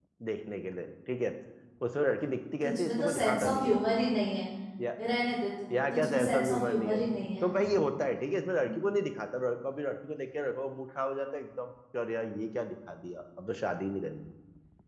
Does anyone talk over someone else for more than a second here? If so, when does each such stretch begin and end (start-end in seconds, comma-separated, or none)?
2.6-3.8, 5.7-7.0